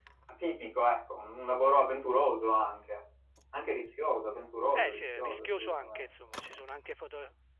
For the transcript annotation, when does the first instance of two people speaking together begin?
4.7 s

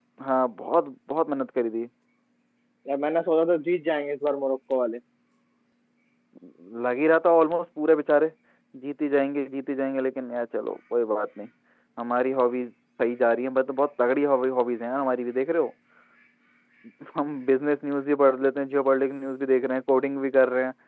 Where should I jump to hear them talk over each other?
none

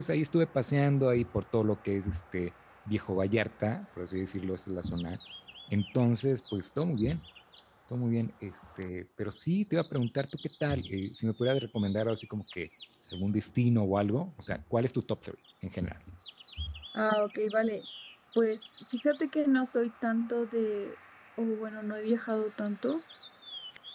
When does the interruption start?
none

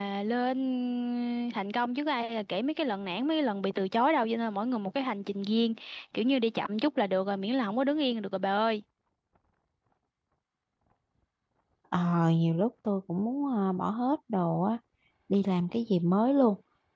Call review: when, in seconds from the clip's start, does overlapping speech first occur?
none

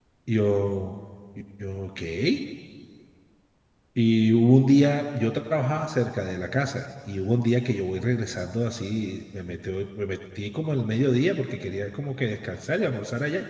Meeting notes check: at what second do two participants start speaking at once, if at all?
none

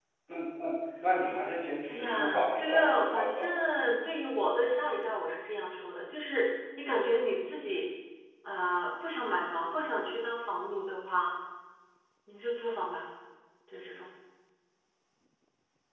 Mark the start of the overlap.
1.9 s

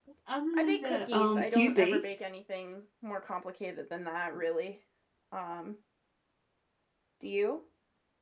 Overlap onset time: 0.5 s

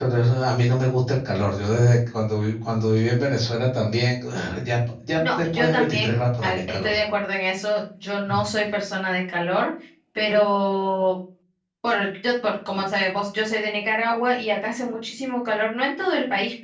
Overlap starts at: 5.2 s

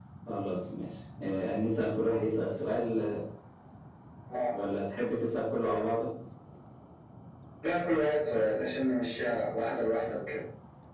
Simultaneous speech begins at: none

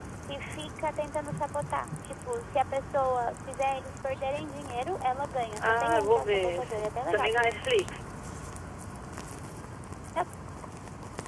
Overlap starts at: 5.6 s

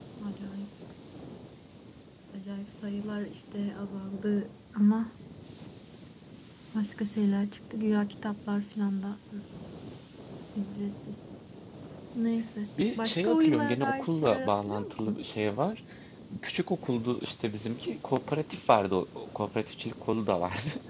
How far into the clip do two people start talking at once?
13.0 s

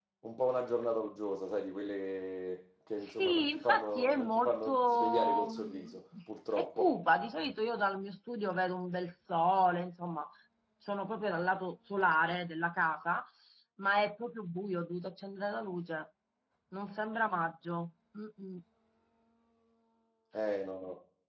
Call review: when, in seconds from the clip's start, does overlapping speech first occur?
3.0 s

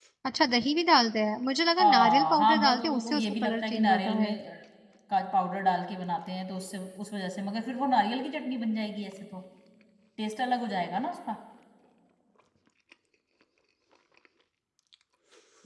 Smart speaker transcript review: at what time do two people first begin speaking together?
1.8 s

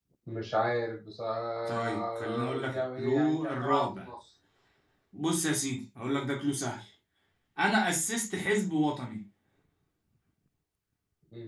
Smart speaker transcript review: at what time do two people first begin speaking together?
1.7 s

